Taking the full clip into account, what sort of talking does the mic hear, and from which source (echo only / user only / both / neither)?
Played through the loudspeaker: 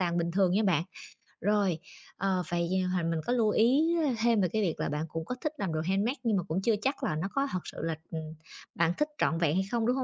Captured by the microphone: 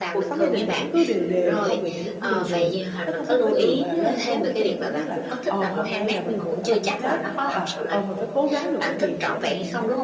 both